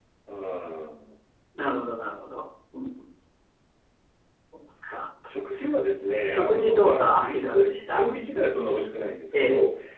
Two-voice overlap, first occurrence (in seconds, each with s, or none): 6.2 s